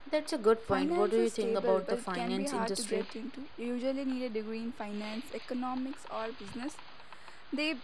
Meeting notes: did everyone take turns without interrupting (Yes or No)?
No